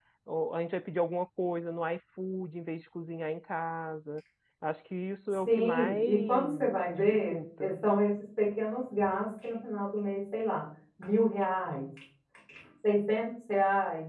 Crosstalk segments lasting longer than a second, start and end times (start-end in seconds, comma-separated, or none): 5.5-7.7